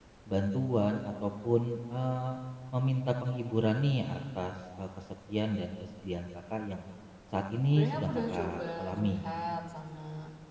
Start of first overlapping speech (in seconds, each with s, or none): 7.7 s